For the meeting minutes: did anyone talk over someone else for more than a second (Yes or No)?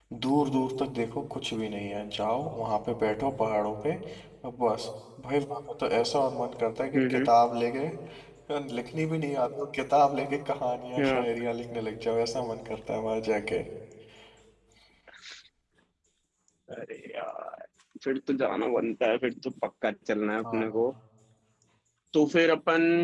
No